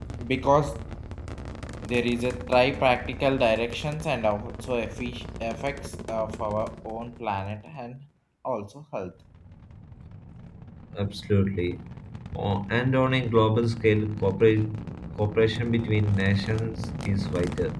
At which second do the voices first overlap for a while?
none

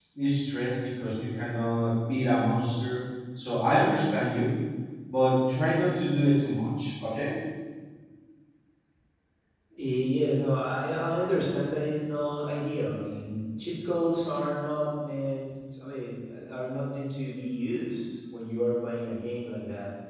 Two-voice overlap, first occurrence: none

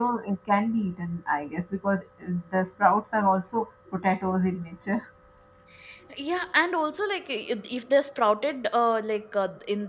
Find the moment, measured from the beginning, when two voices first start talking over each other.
none

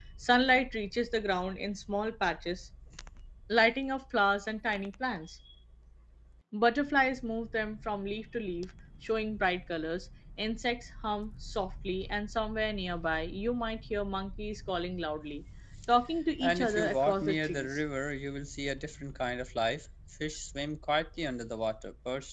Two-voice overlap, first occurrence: 16.4 s

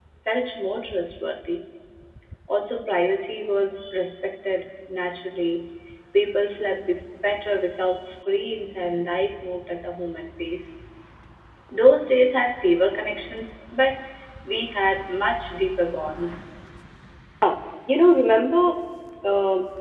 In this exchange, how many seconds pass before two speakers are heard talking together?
none

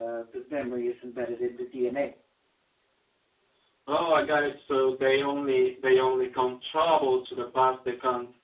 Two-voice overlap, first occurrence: none

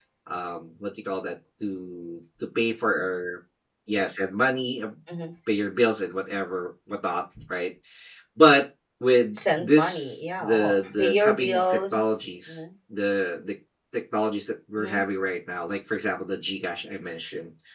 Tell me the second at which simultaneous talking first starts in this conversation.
9.3 s

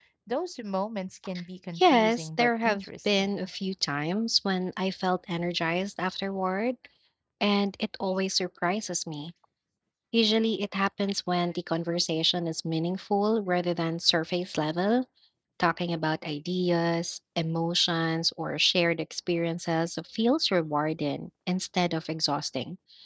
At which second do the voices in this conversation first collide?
1.8 s

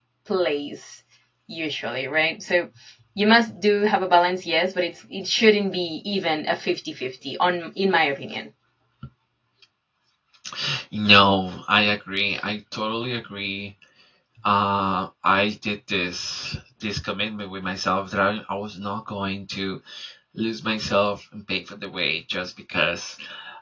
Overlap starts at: none

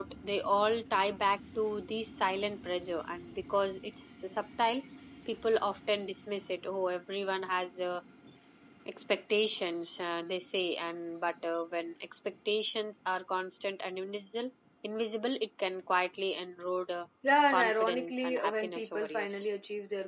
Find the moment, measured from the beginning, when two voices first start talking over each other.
17.5 s

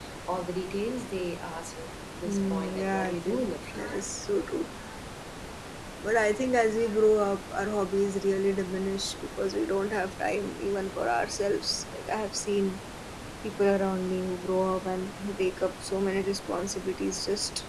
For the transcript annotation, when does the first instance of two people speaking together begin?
2.2 s

